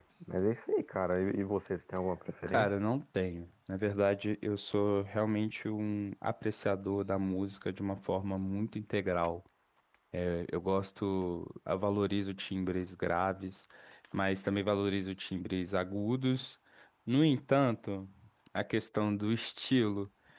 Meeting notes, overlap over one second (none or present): none